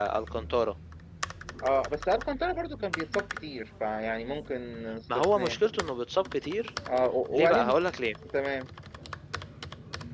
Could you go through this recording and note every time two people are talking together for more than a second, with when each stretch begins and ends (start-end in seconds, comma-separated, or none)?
none